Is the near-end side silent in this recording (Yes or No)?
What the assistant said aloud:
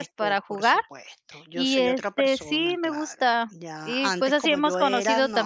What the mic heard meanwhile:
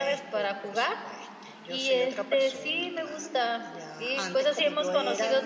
Yes